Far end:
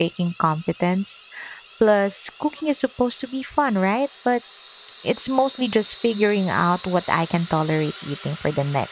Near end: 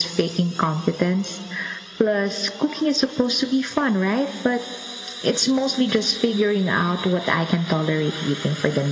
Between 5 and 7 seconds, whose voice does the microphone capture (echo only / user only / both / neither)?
echo only